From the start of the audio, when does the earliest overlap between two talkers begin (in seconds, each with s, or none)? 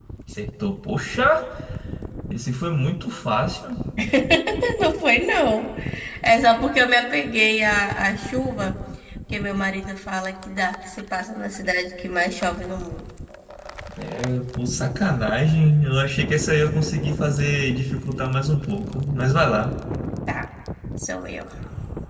none